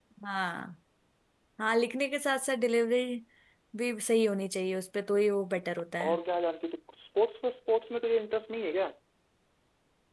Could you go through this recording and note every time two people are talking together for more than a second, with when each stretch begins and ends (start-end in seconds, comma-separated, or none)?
none